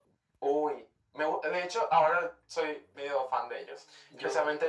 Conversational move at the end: listening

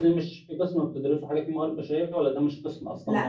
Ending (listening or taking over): taking over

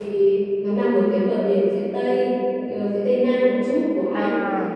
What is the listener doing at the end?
listening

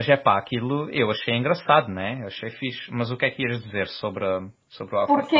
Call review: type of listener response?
taking over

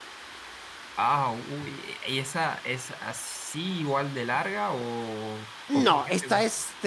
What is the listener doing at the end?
taking over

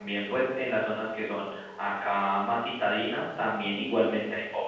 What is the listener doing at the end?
listening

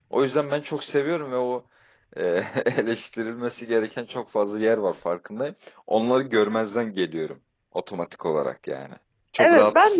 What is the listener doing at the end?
taking over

